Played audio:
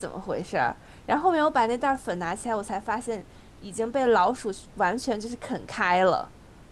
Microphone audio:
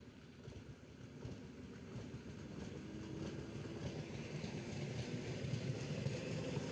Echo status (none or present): none